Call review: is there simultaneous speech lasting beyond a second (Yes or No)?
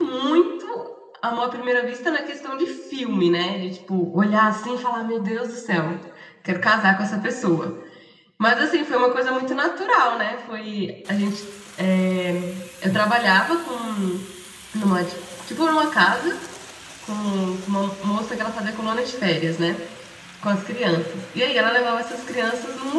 No